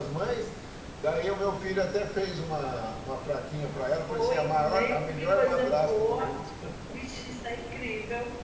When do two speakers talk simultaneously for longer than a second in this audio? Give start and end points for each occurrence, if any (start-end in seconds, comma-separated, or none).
4.1-6.2